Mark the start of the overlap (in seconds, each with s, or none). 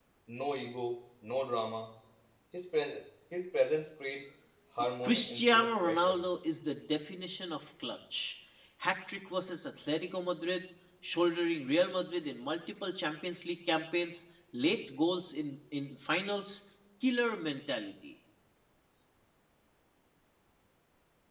4.8 s